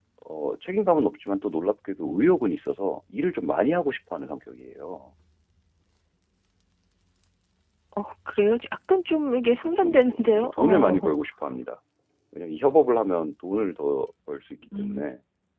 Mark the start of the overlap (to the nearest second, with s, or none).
10 s